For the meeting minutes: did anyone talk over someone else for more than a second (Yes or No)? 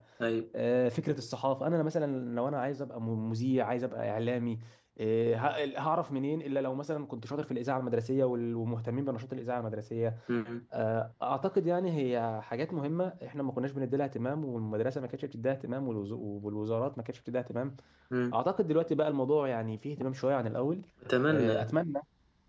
No